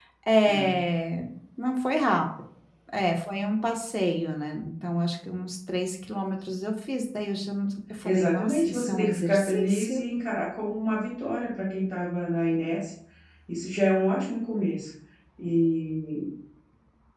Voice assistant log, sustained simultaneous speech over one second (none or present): present